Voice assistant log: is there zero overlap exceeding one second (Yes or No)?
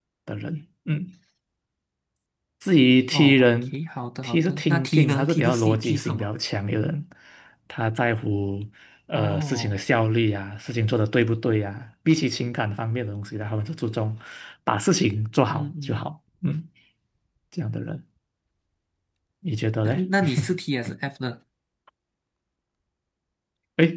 No